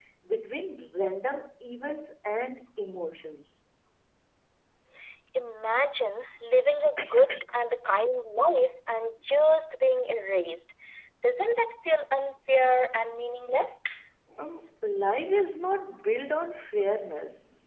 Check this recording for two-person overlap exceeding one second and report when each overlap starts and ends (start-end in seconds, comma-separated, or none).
none